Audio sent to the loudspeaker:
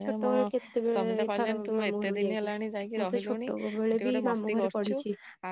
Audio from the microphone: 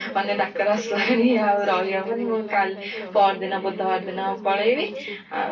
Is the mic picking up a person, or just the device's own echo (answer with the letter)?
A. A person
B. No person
A